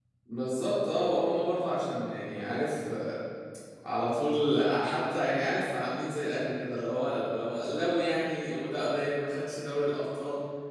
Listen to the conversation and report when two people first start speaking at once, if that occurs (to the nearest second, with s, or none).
none